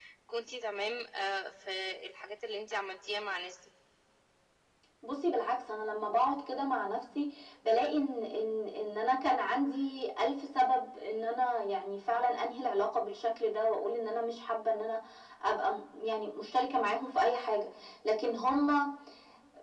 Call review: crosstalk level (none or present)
none